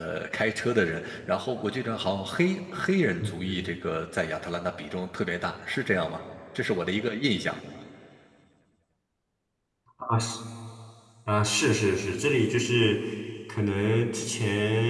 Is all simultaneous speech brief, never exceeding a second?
Yes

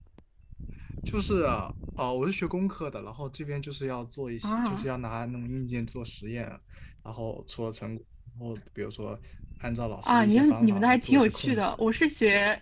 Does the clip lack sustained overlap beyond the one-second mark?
No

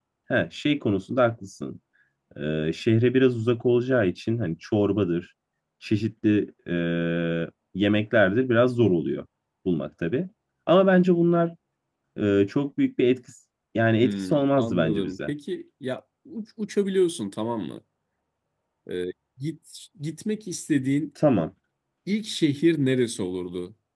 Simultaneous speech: Yes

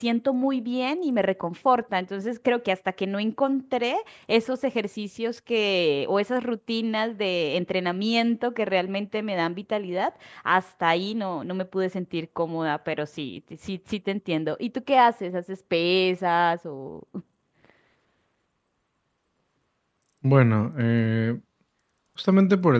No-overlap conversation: Yes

